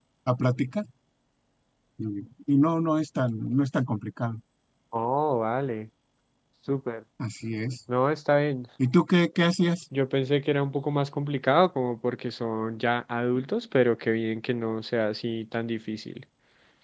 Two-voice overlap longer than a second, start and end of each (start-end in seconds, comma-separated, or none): none